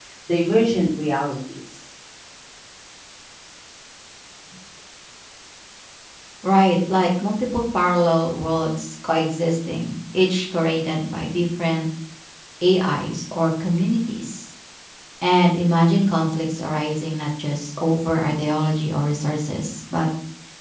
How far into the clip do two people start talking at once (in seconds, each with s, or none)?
none